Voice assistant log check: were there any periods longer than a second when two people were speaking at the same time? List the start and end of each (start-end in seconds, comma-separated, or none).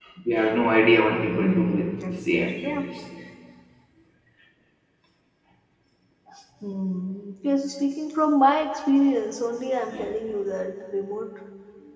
1.2-2.8